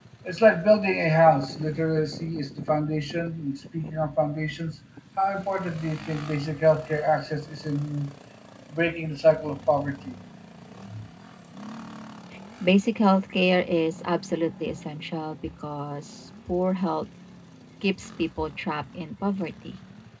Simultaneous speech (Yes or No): No